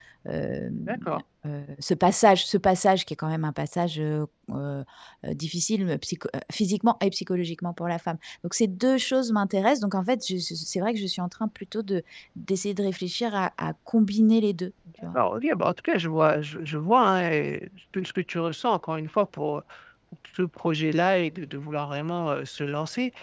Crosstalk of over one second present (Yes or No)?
No